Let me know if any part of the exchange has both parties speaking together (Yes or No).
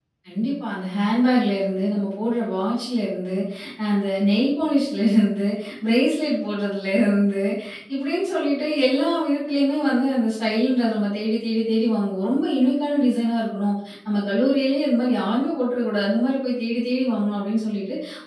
No